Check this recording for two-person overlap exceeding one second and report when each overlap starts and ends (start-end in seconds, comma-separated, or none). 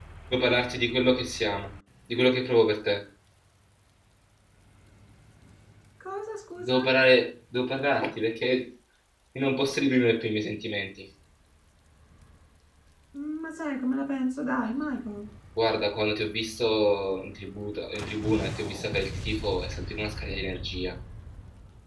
none